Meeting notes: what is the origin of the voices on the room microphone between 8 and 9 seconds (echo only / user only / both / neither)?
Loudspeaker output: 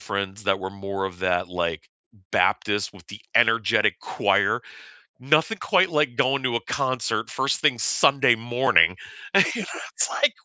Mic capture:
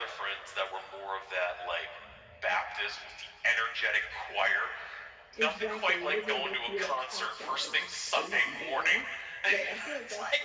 both